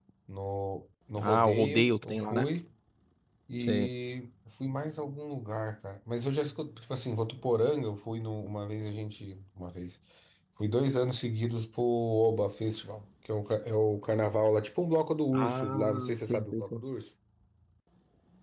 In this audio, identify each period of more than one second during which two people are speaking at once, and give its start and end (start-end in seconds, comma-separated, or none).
1.2-2.5, 15.3-16.8